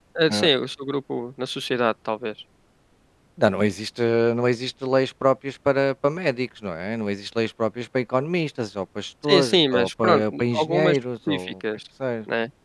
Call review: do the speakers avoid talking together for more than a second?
No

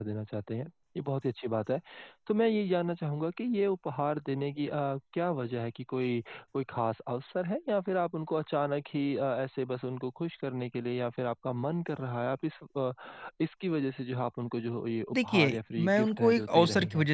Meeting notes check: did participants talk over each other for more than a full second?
Yes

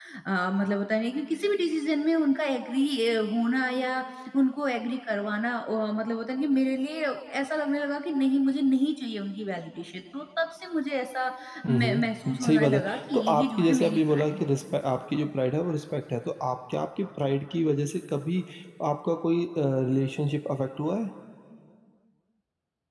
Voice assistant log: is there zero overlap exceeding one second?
No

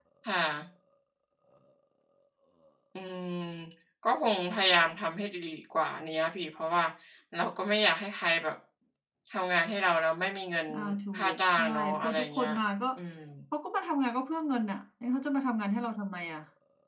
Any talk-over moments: Yes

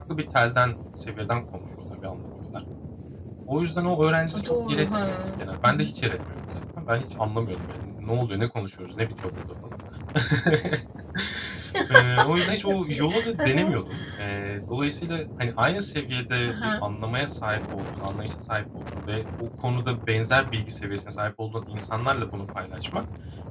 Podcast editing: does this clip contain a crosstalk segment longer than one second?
Yes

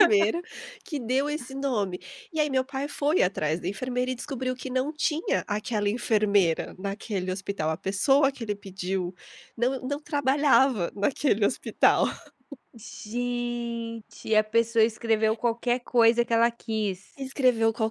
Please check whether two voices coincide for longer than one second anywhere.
No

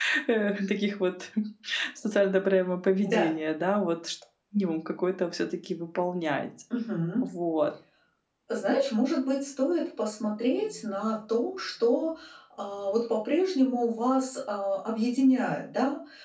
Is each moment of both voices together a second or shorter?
Yes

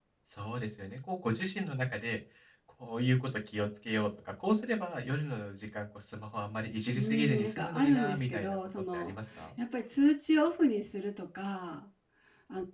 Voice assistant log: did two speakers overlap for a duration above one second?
Yes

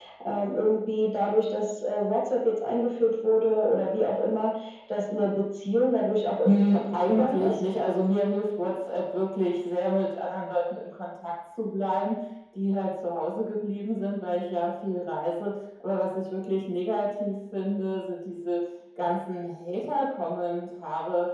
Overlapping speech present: Yes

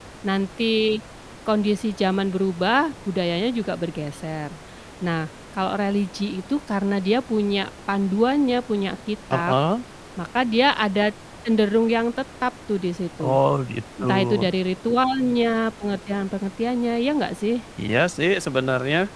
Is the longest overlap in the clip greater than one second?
No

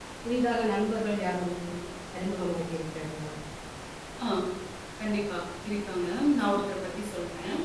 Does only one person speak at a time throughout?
Yes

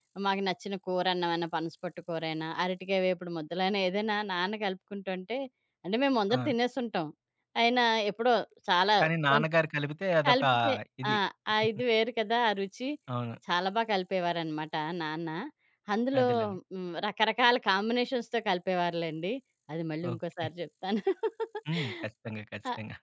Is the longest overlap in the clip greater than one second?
No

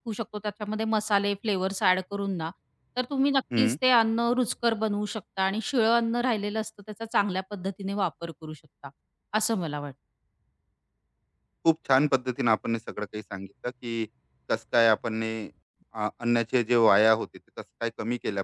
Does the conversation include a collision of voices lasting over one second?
No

